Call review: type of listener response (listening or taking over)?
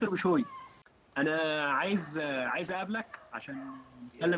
taking over